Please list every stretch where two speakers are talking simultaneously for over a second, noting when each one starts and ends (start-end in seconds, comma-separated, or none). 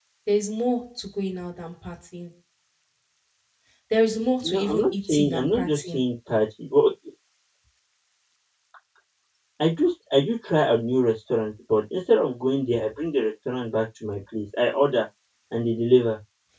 4.4-6.0